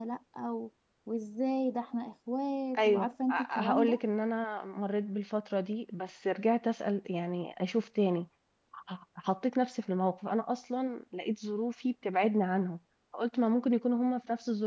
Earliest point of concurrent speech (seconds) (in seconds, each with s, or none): 2.8 s